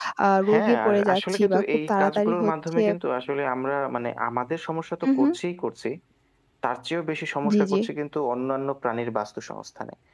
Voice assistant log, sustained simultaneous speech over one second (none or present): present